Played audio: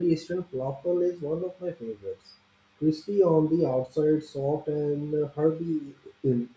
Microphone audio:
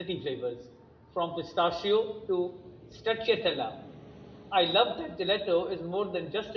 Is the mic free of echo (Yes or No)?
Yes